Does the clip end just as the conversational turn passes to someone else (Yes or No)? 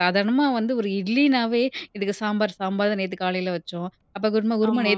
No